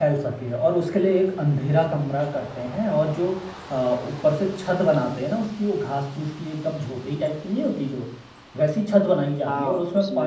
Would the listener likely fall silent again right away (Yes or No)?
Yes